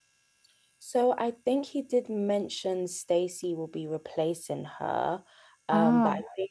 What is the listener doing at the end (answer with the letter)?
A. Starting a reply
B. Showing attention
B